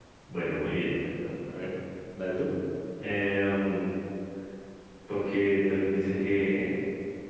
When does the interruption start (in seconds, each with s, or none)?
none